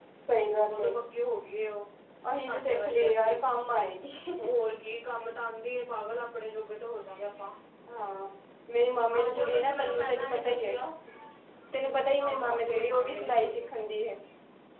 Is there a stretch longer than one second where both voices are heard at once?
Yes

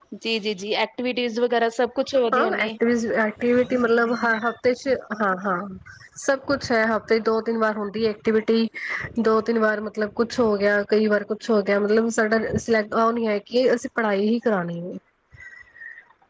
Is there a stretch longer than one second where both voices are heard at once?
No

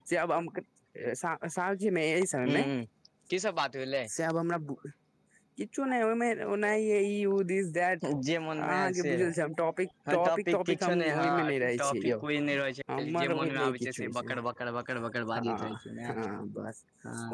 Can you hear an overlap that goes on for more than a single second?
Yes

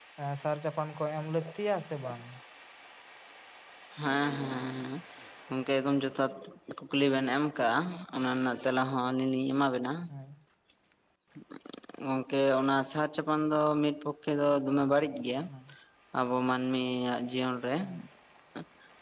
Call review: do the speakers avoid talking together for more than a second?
Yes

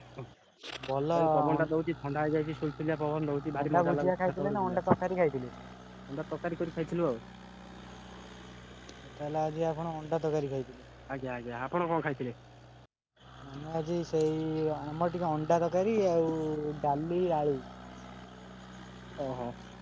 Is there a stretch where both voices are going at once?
Yes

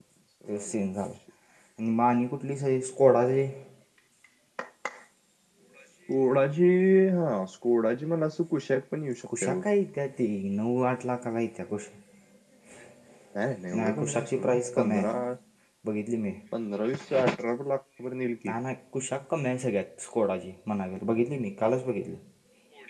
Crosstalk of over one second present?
Yes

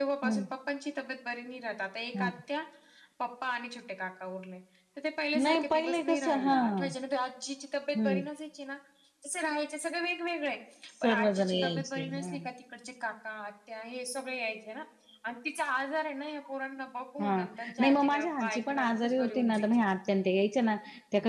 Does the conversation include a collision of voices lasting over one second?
Yes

